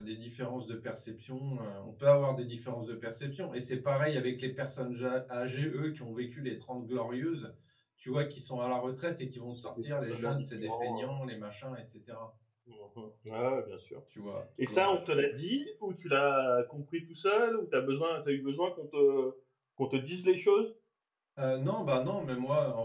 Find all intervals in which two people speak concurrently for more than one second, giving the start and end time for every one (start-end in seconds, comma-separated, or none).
9.8-11.2